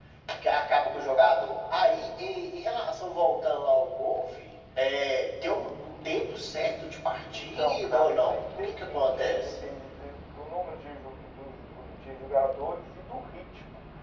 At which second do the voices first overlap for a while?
7.3 s

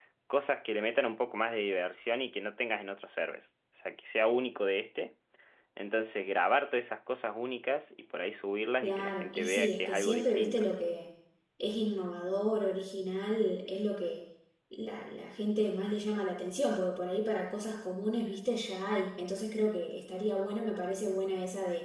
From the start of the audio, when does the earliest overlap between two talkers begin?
8.8 s

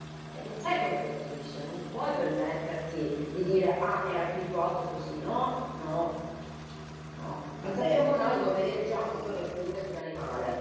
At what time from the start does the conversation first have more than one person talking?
7.6 s

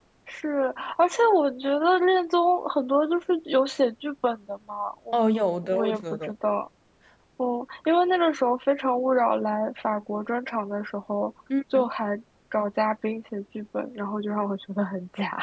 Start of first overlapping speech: 5.1 s

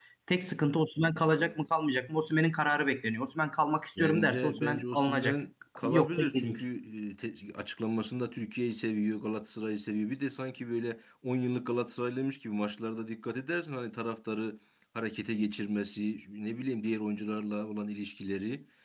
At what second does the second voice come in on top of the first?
4.0 s

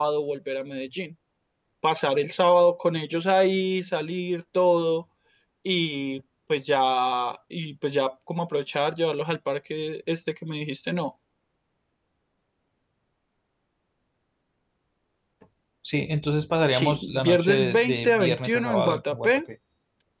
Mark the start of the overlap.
16.7 s

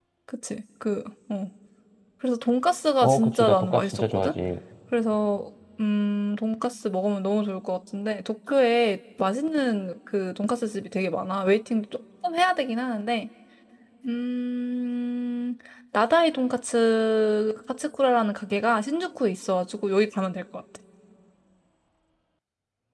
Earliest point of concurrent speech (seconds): 3.0 s

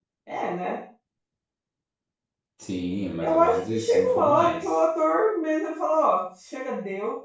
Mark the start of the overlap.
3.2 s

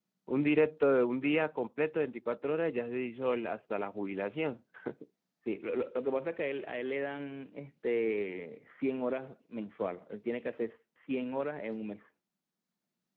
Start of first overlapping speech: none

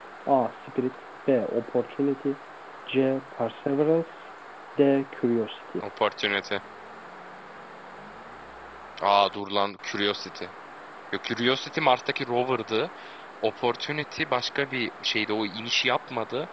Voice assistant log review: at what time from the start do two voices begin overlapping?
none

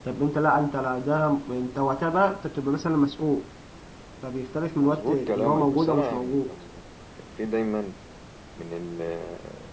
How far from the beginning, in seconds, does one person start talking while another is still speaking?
4.8 s

